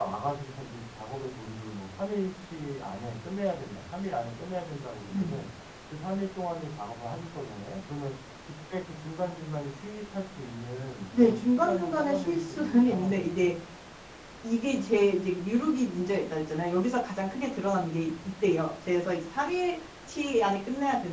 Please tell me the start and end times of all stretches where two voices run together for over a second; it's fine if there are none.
11.2-13.5

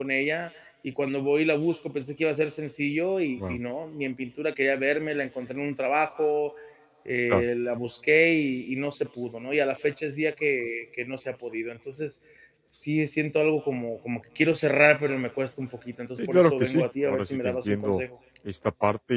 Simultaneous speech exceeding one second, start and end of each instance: 16.2-18.0

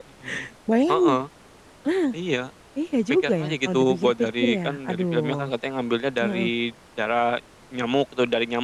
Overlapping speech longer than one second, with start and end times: 3.2-5.5

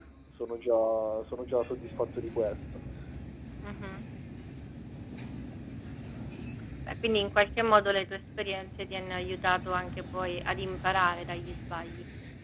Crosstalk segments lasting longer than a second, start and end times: none

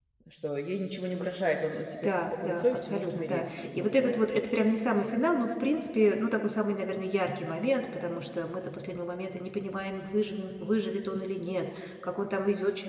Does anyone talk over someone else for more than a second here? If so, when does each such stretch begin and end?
2.0-4.2

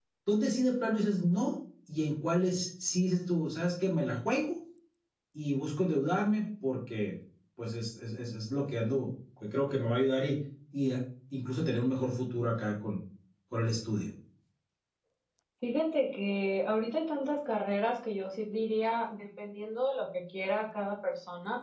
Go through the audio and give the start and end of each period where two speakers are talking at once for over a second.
none

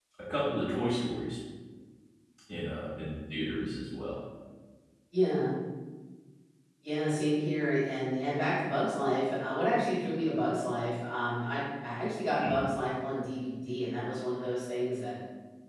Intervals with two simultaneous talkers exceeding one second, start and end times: none

